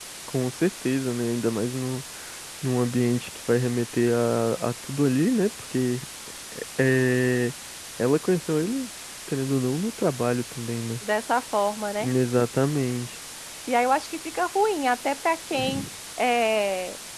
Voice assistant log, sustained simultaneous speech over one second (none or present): none